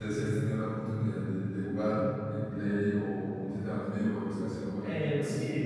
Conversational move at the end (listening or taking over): taking over